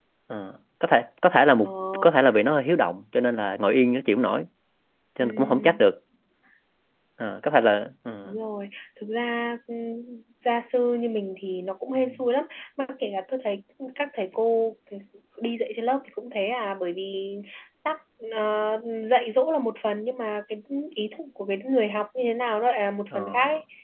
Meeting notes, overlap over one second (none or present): none